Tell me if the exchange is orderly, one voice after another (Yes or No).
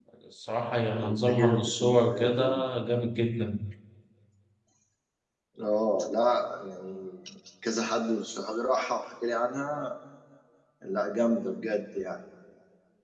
No